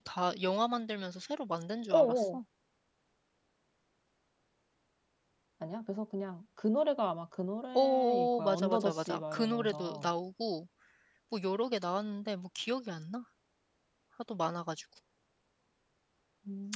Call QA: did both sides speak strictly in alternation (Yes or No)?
No